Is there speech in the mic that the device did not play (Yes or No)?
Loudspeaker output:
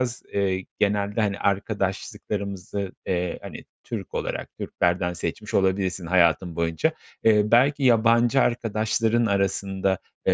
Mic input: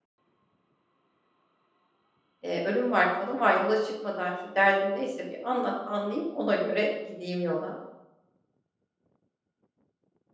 Yes